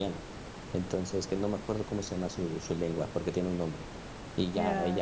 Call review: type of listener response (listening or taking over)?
listening